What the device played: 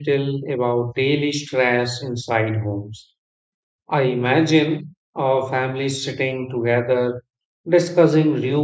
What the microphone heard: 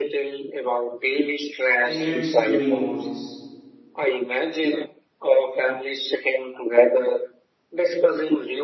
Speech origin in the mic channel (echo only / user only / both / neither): both